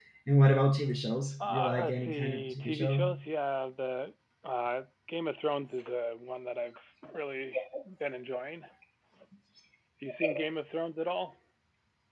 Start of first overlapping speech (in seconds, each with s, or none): 1.4 s